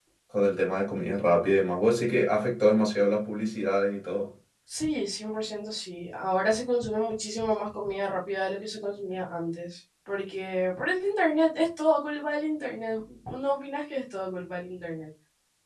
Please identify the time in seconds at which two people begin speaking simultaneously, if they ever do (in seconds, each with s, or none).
none